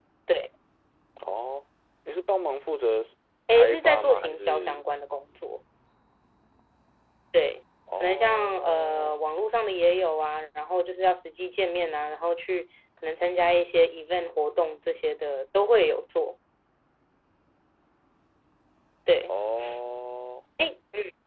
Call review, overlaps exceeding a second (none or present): present